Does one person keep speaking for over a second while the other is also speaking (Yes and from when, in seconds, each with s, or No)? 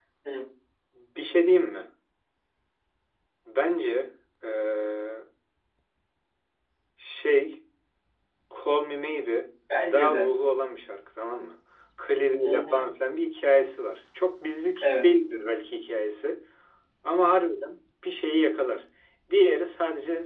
No